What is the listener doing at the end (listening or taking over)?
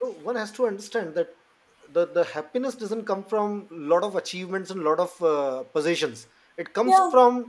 listening